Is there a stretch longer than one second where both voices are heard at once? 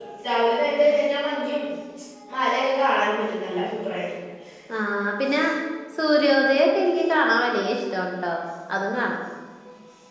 No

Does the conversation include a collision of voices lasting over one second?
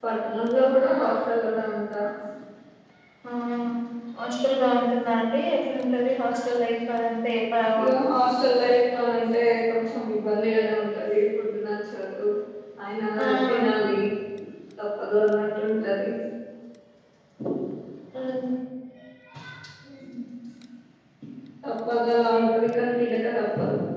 No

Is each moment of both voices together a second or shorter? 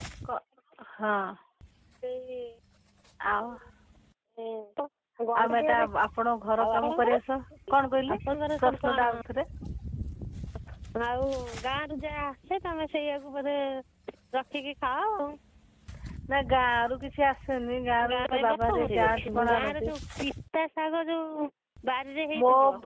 No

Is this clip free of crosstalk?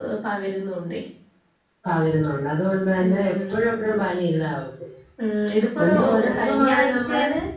No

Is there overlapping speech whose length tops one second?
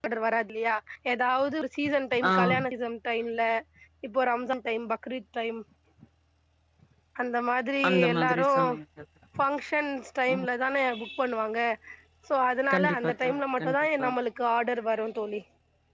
Yes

